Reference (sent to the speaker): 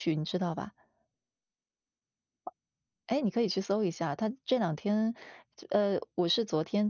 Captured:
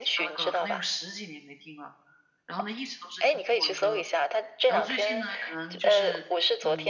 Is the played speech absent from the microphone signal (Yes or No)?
No